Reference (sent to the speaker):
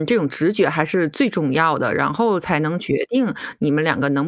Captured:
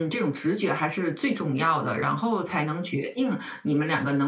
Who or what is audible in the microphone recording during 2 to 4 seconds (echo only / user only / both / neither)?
echo only